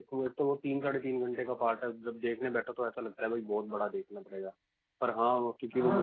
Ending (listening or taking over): taking over